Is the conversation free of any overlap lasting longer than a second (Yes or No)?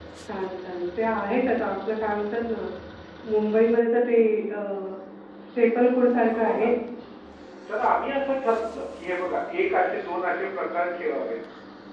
Yes